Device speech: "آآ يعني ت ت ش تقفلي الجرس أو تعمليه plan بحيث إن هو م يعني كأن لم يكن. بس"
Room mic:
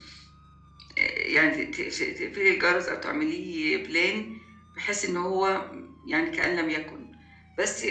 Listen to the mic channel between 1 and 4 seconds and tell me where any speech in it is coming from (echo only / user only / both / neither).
echo only